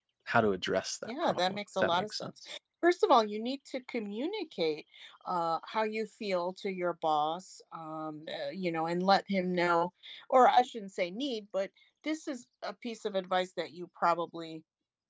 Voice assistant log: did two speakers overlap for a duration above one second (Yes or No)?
Yes